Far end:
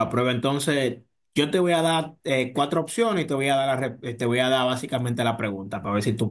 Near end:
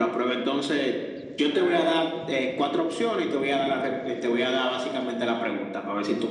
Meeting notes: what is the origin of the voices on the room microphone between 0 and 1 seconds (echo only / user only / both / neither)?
echo only